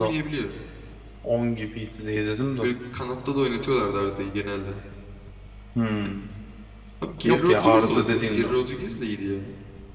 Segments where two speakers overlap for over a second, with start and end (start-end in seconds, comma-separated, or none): 7.2-8.6